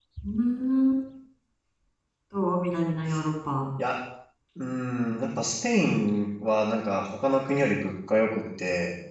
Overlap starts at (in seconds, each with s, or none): none